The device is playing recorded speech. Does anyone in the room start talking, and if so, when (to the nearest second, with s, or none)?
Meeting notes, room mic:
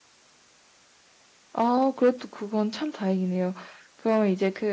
2 s